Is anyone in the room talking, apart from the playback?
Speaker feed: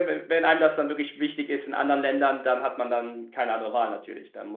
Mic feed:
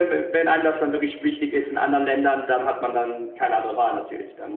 No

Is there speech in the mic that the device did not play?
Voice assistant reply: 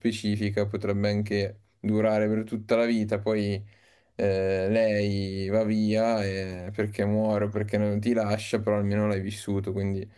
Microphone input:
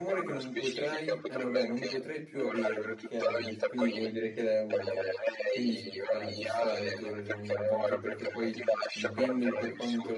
Yes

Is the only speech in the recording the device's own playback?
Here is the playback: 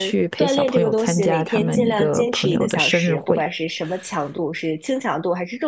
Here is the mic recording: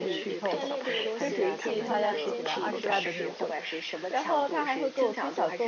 No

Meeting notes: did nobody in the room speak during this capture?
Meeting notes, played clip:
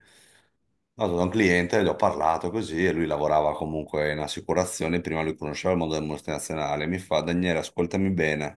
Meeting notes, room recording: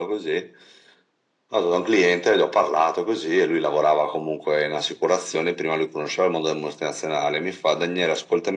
Yes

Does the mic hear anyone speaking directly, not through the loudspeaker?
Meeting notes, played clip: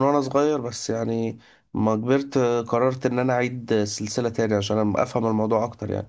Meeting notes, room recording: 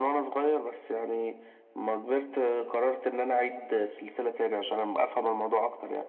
No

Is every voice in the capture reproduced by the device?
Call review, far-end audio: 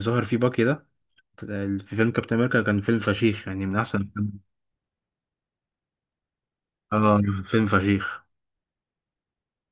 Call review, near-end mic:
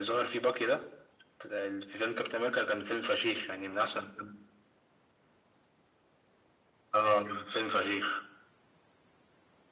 Yes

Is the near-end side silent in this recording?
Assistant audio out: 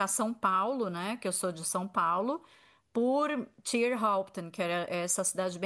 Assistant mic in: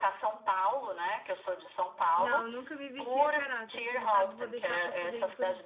No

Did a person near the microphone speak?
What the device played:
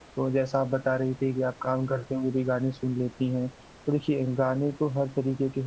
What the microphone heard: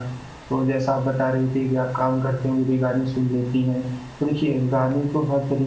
No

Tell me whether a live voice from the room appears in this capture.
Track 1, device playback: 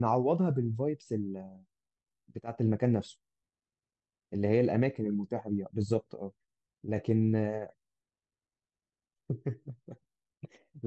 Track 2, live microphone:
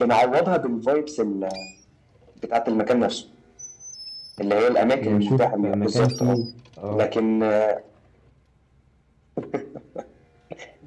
Yes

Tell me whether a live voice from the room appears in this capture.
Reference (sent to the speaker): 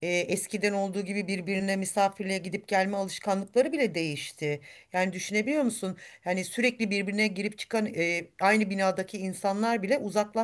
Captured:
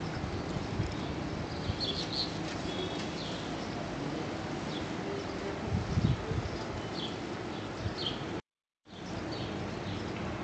No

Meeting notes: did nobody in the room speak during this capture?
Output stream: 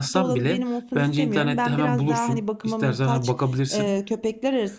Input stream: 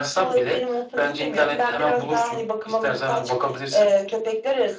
Yes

